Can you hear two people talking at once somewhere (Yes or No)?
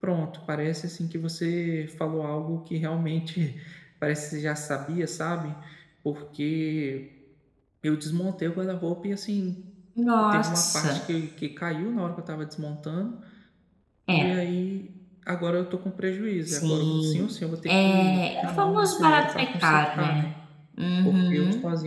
Yes